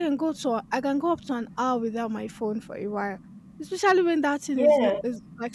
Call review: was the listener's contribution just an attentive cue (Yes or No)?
Yes